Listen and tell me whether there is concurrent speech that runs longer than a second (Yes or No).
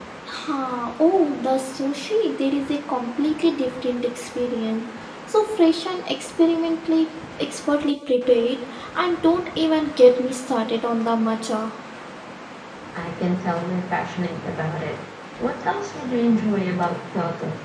No